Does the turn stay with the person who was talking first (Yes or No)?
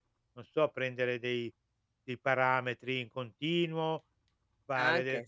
Yes